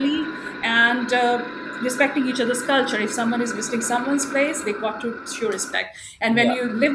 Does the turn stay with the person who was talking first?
No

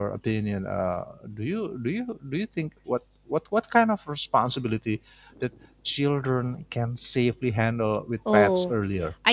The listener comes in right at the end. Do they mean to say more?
Yes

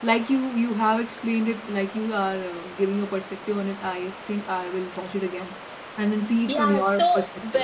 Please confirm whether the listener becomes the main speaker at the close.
Yes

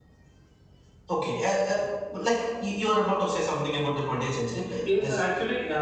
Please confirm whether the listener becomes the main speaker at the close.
Yes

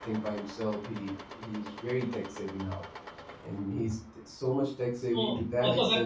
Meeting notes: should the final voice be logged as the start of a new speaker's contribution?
Yes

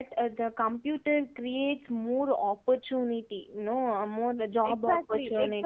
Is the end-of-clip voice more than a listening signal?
Yes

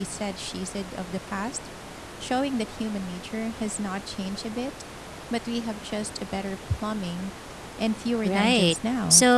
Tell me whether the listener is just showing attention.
No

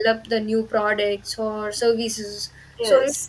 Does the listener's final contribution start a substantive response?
No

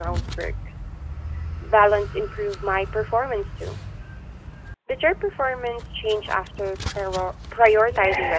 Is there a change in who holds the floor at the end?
Yes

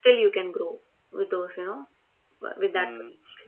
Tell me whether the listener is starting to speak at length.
Yes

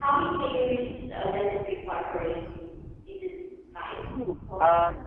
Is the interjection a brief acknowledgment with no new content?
No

